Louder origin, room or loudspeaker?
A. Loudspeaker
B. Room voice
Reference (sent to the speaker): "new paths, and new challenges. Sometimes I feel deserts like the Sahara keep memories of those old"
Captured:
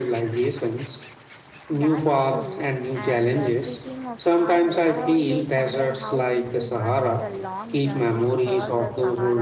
A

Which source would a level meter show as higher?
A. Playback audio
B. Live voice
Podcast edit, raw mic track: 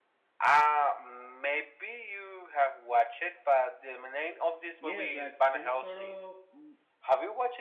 A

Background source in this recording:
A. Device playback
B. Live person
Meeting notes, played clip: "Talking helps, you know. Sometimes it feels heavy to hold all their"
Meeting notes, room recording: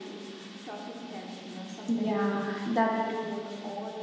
A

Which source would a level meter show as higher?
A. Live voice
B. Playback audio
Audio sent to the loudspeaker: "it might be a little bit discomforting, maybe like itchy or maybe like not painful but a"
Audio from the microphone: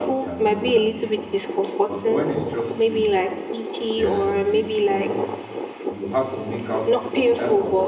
B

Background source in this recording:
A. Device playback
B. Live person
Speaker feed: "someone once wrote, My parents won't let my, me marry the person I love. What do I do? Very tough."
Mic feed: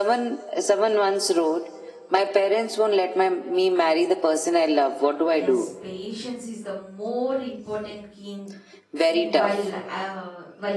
B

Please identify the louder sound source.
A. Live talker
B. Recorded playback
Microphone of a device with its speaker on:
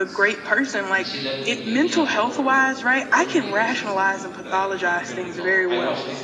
B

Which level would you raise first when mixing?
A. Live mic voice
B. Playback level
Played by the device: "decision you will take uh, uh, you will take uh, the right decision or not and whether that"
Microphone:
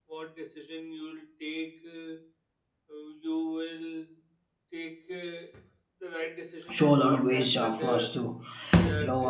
B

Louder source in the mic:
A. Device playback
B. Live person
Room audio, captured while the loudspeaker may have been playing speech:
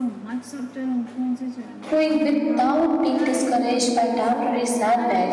B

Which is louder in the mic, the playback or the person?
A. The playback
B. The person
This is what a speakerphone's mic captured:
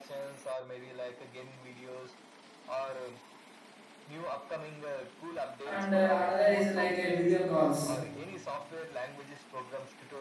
B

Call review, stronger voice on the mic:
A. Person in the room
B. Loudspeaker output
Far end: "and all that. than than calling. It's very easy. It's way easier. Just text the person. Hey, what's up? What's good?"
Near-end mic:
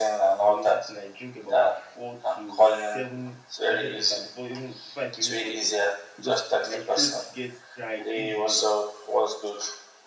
B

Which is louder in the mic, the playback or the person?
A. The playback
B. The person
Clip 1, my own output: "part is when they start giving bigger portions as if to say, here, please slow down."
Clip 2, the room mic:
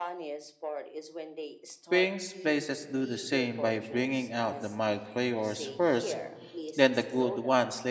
B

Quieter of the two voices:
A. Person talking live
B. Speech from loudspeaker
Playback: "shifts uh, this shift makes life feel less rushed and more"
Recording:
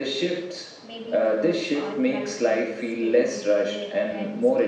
A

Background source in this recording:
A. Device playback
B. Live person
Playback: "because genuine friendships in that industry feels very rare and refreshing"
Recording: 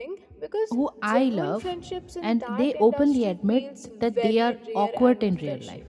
A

